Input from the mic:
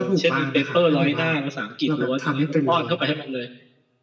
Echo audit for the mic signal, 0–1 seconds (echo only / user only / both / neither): echo only